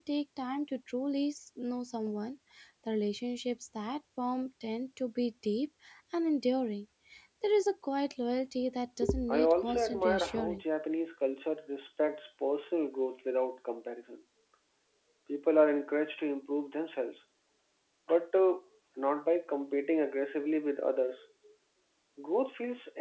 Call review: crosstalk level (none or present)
present